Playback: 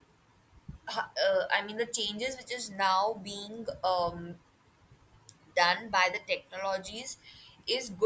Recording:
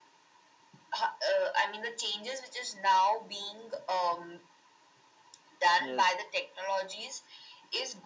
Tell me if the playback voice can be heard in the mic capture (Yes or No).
Yes